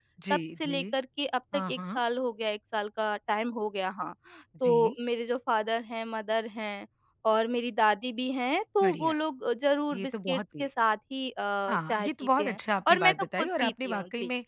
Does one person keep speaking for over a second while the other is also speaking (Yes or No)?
Yes